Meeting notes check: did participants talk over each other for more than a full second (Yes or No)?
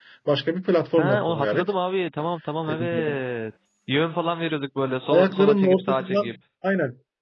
Yes